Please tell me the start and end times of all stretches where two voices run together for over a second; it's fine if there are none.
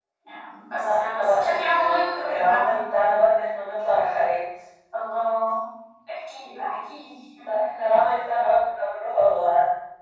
0.8-2.8

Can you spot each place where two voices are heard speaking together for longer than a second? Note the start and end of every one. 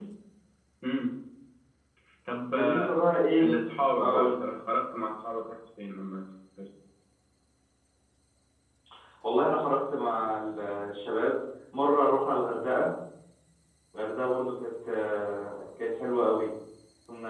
none

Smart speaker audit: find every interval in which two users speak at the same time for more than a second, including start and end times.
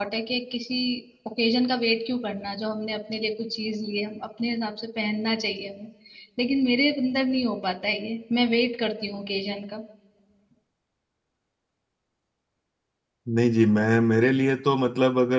none

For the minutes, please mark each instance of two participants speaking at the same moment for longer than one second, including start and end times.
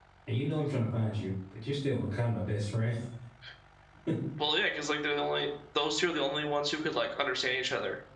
none

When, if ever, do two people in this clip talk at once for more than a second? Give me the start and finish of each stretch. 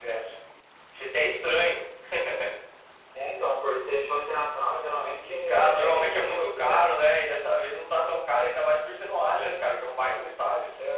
5.5-6.9

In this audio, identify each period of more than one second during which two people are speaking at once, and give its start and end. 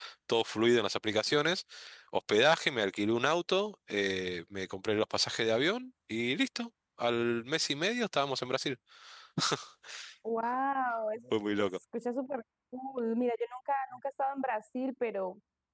none

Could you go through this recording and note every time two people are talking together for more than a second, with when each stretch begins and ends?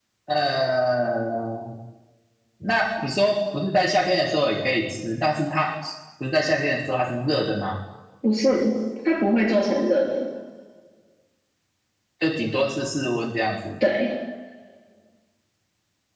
none

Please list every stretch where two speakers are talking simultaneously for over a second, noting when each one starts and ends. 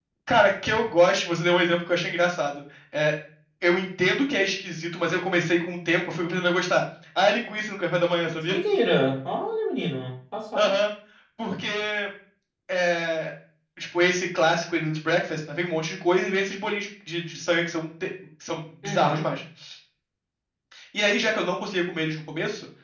none

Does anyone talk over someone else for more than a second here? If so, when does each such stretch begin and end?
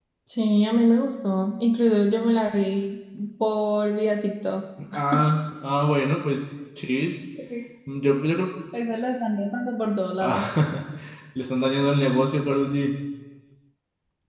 none

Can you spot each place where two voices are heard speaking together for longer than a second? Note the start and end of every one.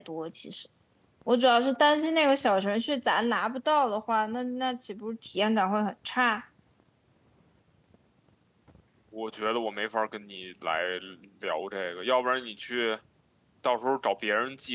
none

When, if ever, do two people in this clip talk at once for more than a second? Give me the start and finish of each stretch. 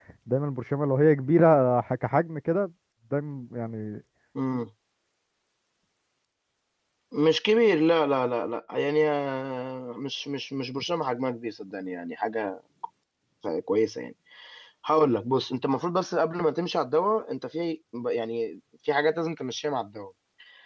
none

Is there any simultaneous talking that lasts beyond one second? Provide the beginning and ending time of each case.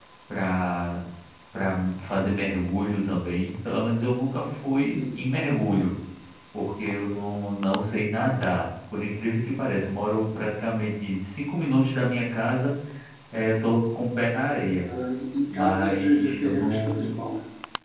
15.5-17.1

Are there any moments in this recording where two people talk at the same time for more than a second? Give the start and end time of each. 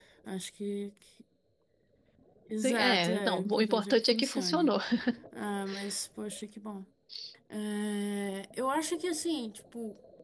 2.6-4.7

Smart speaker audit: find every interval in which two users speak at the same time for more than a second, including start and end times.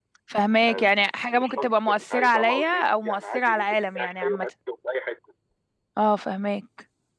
1.3-4.5

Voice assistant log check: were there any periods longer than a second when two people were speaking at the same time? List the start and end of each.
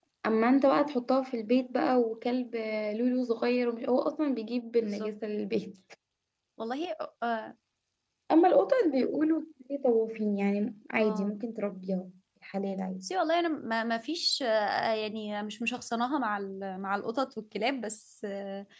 none

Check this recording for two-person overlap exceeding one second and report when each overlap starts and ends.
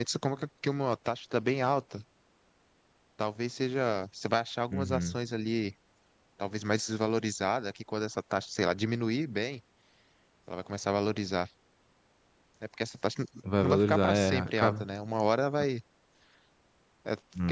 13.6-14.8

